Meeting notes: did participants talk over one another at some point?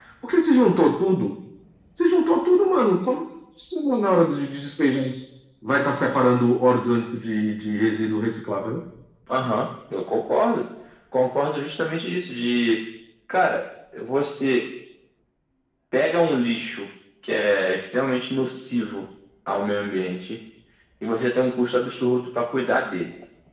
No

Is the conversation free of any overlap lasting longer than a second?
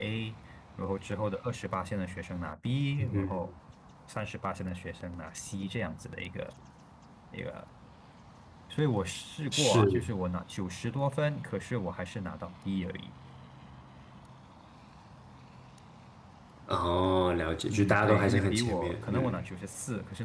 No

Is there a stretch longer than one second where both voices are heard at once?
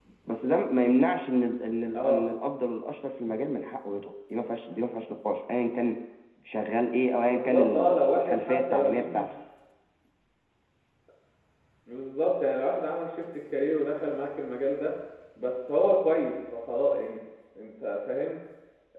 Yes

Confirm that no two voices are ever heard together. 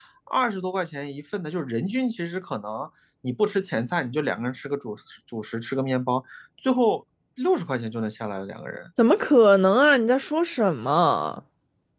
Yes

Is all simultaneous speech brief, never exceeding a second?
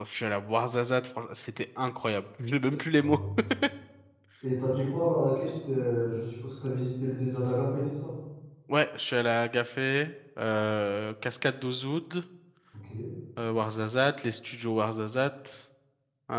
Yes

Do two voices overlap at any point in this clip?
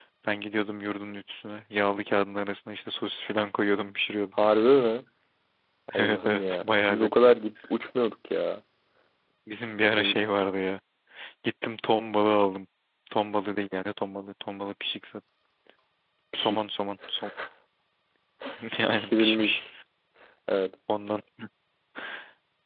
Yes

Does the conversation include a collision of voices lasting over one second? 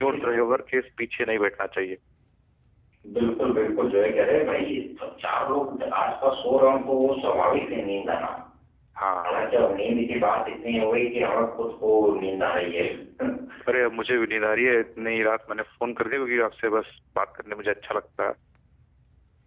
No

